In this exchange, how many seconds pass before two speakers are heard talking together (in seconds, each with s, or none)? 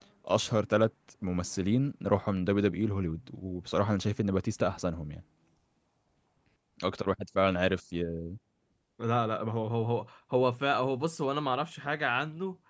none